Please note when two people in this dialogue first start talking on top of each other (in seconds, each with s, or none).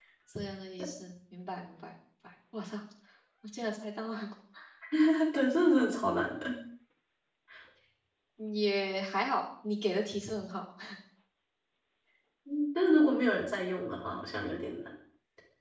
none